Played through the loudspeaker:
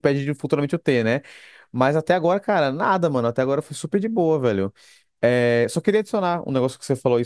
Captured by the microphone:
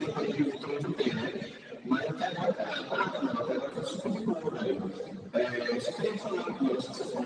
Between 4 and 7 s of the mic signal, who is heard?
echo only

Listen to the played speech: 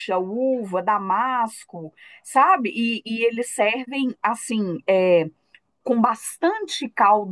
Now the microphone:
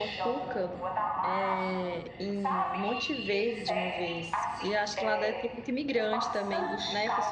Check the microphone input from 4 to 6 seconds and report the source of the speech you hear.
both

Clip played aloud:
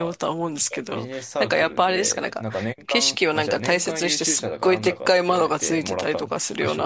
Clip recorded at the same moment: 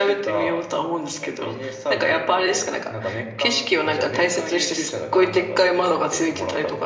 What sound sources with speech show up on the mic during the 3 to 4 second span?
echo only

